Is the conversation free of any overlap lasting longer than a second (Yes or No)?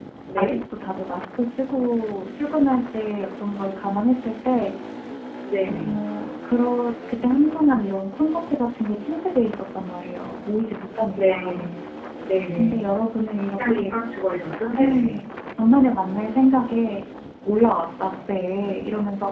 Yes